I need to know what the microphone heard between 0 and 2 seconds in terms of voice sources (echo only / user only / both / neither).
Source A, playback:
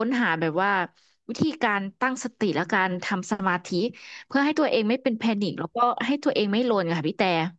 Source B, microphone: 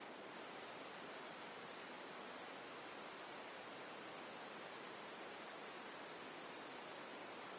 neither